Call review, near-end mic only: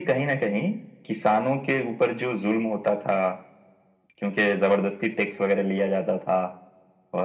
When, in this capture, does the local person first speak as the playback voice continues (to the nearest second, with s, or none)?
none